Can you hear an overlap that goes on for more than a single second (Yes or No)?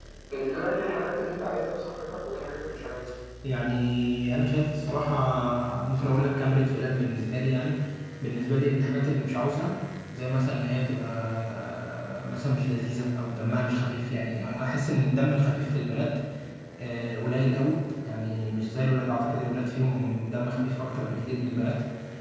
No